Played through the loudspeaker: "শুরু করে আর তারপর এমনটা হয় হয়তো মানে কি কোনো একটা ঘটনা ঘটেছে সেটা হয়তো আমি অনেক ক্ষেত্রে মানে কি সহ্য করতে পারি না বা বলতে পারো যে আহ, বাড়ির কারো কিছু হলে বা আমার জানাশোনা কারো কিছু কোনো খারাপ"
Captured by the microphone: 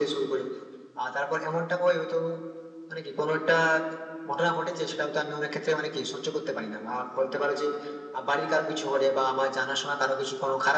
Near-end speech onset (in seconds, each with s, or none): none